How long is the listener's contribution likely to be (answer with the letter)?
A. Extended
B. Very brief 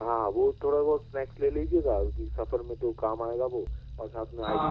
A